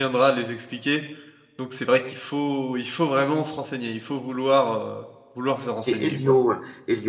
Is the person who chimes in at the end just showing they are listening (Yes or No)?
No